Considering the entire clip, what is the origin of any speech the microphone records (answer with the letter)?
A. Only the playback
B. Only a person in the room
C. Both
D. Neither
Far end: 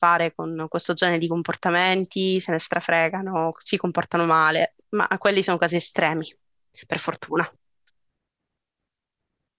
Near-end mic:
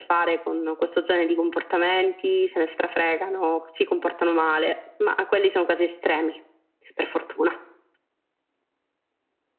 A